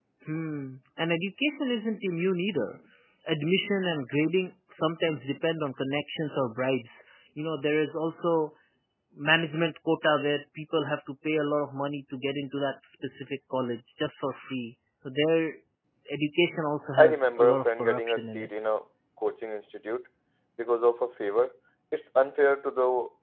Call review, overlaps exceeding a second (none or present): present